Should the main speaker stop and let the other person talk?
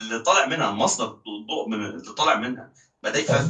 No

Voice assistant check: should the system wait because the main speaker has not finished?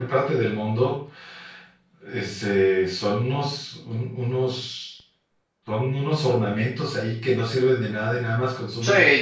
No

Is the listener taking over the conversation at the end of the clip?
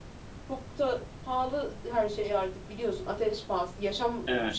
No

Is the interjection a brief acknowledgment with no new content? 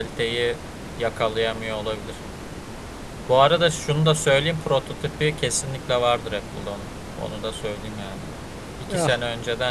Yes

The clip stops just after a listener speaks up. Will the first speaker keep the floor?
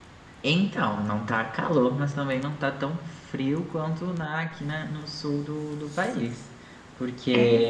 Yes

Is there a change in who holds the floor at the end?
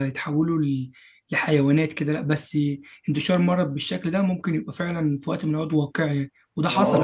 Yes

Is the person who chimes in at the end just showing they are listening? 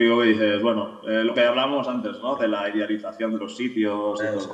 Yes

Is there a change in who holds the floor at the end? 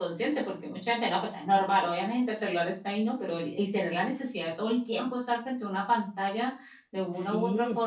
No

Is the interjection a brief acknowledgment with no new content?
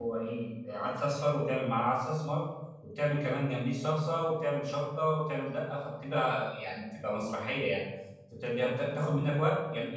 Yes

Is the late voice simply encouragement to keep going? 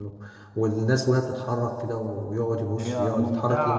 Yes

